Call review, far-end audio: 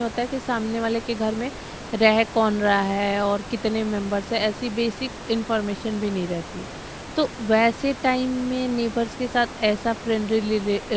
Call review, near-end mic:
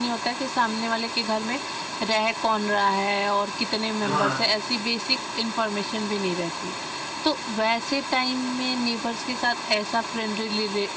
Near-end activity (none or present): present